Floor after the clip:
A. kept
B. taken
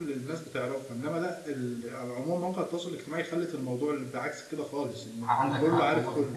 B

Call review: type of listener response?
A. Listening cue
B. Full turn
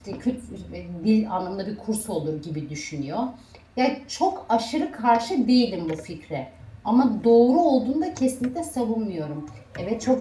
A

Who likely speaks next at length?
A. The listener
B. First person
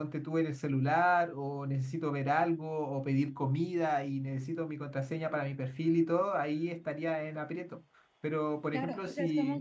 A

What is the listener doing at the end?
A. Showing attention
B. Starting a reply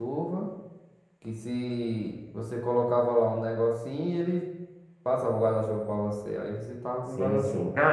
B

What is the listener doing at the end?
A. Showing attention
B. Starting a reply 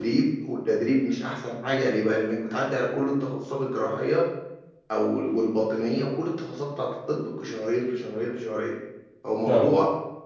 A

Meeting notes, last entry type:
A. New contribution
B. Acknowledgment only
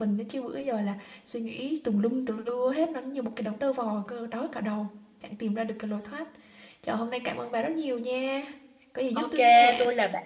A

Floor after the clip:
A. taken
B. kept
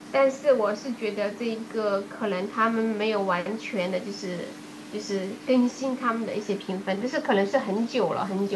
A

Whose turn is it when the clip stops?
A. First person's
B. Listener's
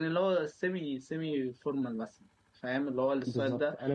B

